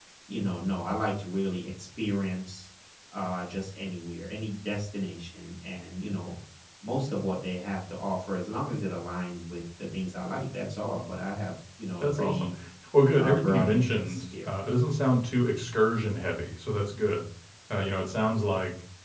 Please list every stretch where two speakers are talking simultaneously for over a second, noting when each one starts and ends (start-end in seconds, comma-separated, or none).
13.2-14.5